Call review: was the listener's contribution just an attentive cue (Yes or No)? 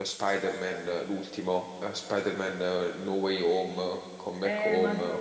No